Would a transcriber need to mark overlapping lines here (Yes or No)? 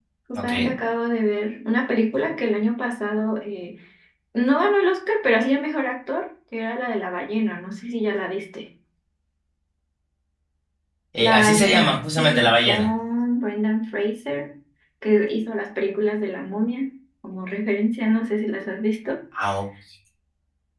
Yes